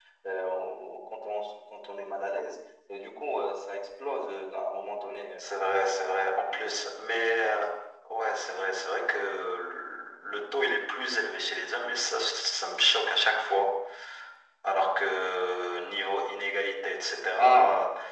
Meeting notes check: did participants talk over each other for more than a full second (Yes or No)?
No